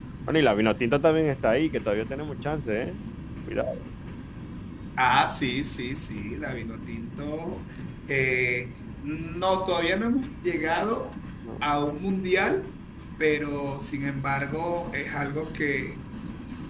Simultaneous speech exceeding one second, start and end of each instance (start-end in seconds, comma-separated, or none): none